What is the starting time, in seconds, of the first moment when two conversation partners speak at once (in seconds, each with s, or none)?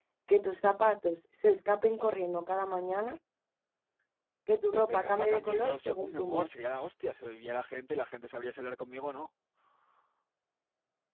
4.7 s